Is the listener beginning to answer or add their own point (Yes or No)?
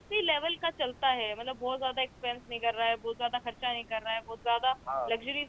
No